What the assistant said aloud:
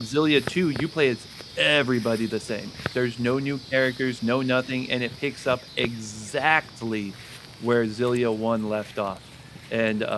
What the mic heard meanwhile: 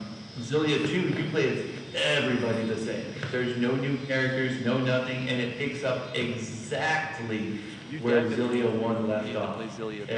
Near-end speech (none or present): present